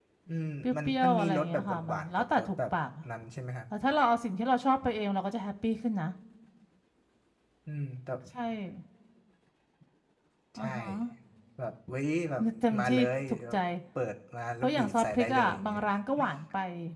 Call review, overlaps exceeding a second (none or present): present